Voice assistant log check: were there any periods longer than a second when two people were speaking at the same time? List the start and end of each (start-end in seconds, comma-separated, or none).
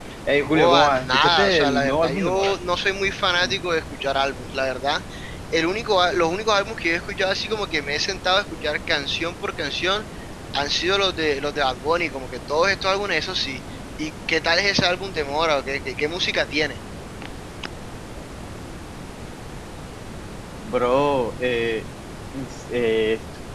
0.5-2.5